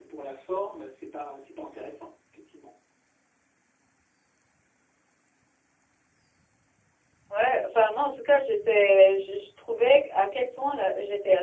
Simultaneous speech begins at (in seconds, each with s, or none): none